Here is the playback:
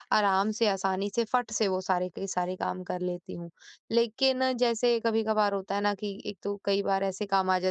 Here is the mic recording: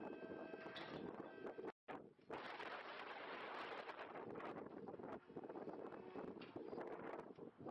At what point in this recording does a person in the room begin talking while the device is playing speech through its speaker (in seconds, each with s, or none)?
none